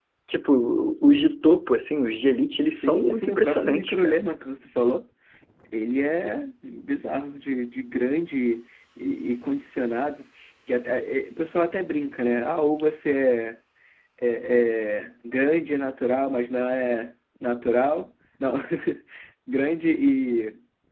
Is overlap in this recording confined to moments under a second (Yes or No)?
No